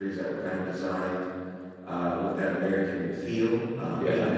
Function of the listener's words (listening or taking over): listening